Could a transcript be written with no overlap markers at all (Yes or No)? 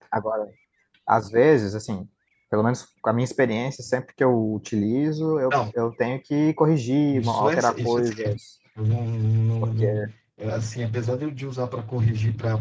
No